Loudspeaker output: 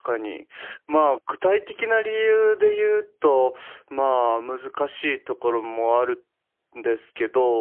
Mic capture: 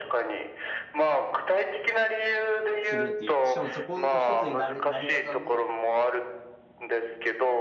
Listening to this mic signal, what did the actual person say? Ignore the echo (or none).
するっていう、しかもそこの一つになる、なり方も、